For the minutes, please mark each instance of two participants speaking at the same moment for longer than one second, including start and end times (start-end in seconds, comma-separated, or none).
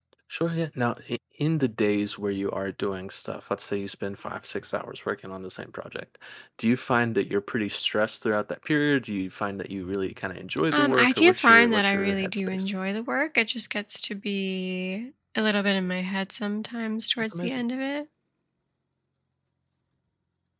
10.7-12.7